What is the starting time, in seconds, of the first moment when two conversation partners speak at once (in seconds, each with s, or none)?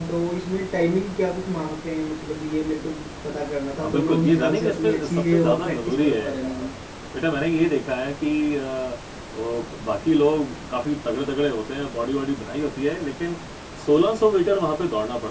3.8 s